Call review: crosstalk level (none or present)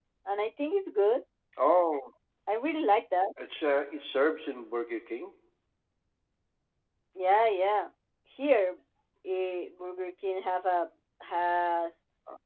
none